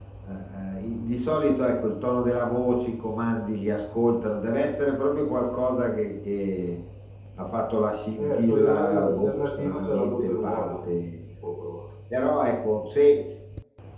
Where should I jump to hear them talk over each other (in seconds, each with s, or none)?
8.2 s